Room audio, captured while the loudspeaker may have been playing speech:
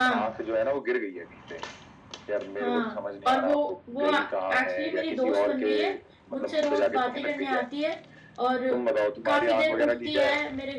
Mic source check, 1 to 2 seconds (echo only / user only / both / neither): echo only